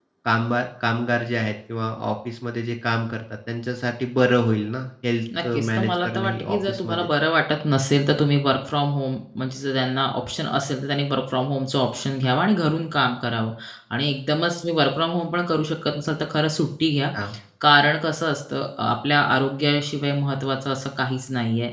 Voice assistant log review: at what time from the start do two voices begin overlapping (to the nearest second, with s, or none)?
6 s